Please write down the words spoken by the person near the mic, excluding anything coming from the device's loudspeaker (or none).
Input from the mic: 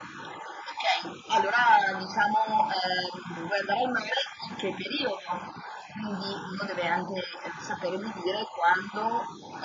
none